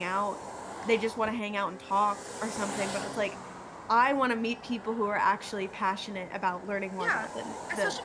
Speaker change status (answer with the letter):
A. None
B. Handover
B